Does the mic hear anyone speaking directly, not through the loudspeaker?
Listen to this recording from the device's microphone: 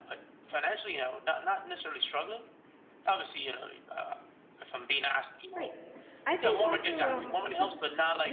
Yes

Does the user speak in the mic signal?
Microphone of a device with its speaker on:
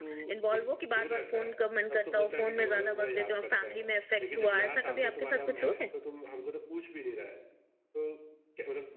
Yes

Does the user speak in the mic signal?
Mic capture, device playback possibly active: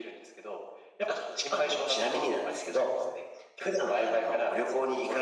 No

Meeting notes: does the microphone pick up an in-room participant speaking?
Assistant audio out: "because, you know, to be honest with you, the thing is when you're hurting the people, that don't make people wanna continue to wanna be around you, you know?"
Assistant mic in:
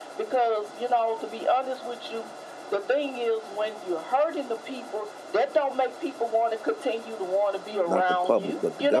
Yes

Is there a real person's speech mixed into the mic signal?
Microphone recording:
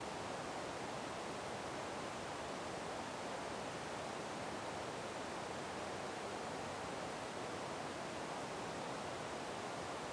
No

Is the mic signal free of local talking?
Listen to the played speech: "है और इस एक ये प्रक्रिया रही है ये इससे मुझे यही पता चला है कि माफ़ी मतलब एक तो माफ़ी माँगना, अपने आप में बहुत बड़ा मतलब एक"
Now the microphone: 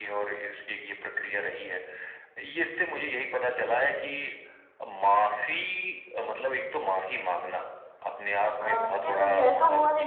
No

